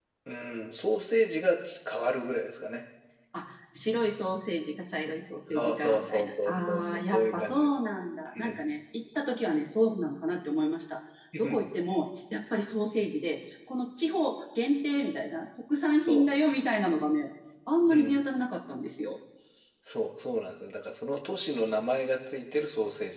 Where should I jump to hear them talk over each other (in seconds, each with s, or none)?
5.5 s